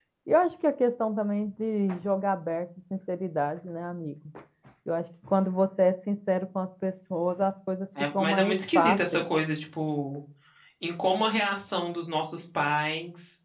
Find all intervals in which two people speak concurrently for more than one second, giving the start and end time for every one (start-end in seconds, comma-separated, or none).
8.0-9.2